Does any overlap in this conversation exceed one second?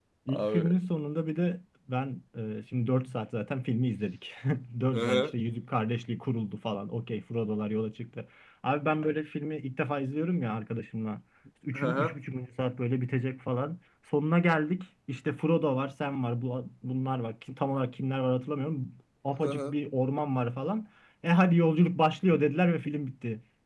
No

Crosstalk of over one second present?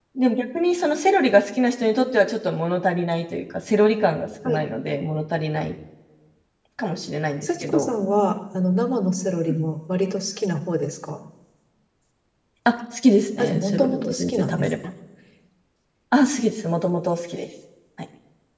Yes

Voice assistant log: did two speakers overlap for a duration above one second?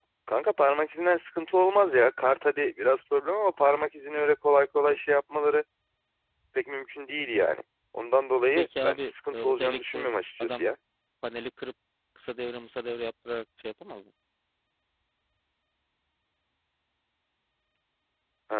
Yes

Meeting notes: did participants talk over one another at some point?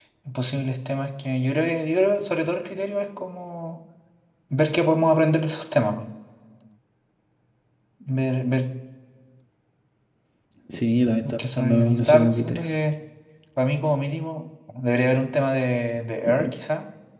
Yes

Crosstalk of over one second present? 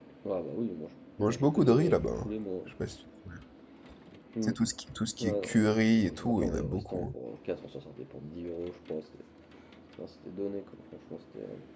Yes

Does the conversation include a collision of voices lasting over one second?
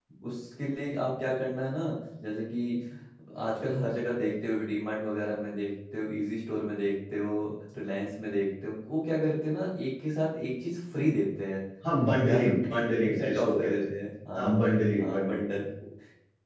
Yes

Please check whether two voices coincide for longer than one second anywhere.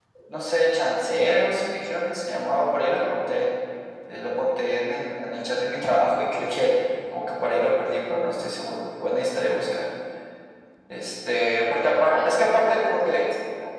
Yes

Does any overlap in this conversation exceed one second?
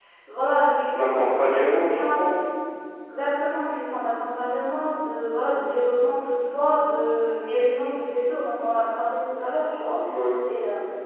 Yes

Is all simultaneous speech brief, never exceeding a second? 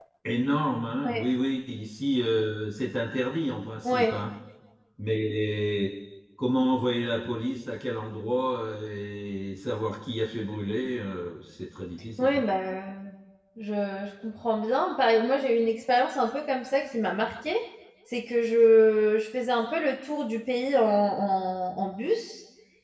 Yes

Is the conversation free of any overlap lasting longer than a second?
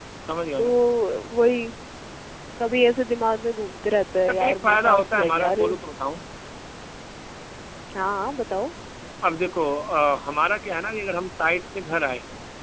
No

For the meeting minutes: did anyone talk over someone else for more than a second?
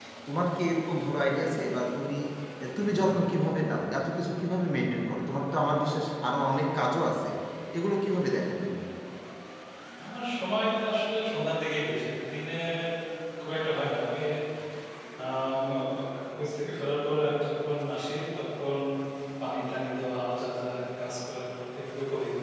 No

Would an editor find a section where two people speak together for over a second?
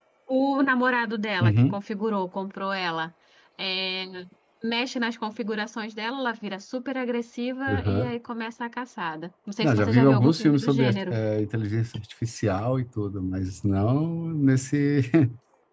Yes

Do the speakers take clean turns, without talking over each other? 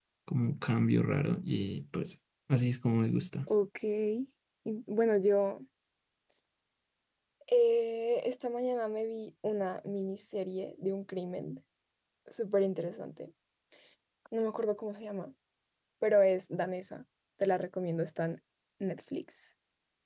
Yes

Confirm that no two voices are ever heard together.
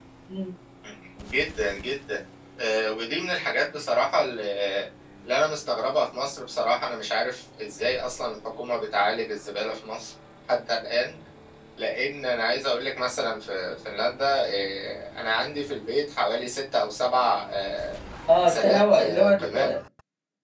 No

